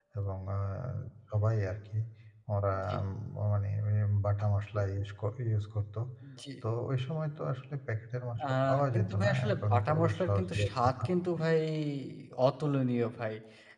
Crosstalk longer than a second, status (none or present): present